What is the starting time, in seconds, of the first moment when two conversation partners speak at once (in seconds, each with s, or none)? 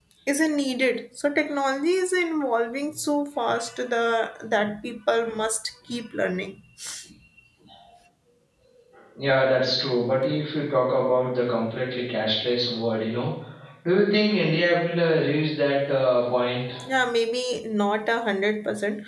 none